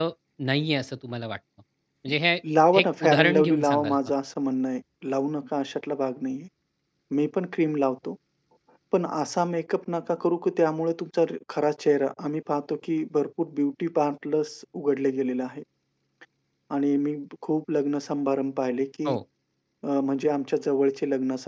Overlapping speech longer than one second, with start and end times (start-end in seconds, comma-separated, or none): 2.7-4.0